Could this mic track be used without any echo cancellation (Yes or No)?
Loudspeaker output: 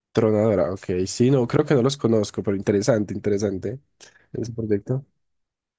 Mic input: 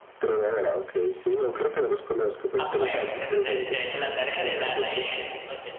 No